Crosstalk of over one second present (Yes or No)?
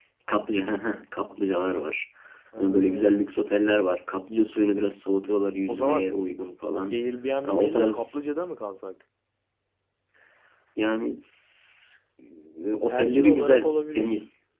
Yes